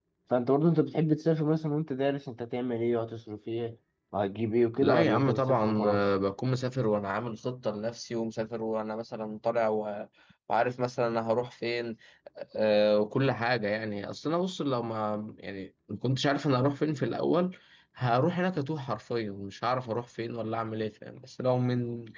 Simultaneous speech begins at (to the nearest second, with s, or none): 5 s